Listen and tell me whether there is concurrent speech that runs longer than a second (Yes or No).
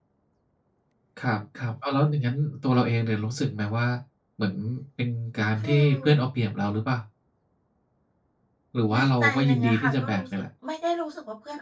Yes